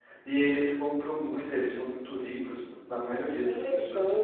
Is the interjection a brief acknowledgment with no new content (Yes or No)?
No